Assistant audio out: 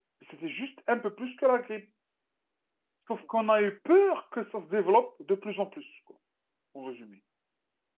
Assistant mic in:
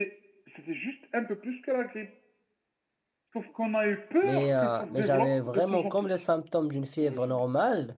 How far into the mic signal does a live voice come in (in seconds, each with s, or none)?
4.2 s